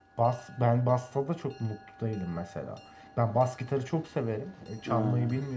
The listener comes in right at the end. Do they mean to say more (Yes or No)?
No